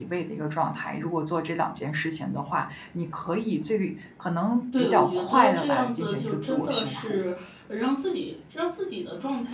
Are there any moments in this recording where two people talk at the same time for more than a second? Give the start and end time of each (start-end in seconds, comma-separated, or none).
4.8-7.2